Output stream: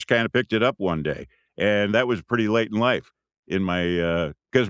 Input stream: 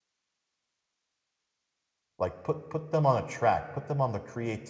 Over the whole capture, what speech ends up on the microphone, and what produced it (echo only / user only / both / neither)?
user only